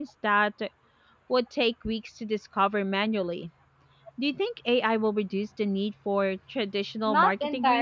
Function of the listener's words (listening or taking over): taking over